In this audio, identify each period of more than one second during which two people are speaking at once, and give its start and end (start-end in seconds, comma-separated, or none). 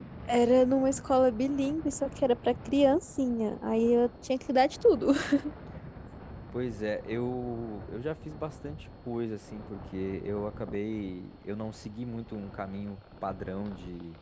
none